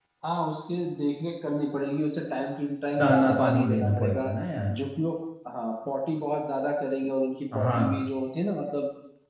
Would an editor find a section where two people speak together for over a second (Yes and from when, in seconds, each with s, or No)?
Yes, from 3.0 s